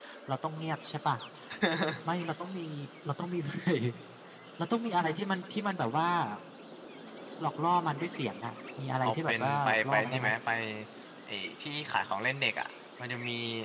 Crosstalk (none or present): present